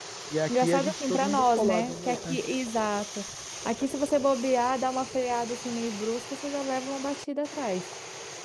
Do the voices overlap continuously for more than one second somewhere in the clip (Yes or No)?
Yes